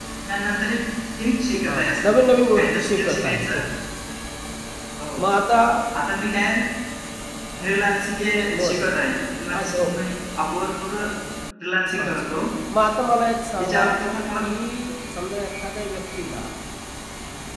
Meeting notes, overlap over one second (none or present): present